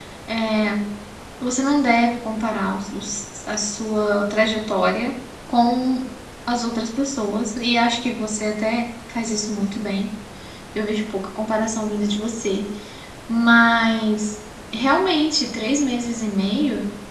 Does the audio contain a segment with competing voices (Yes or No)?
No